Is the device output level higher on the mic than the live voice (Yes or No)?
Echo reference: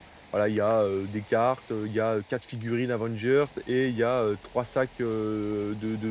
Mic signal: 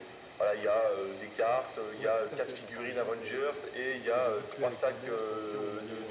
Yes